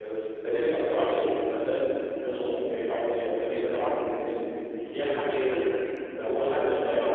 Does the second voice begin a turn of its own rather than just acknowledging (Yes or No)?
Yes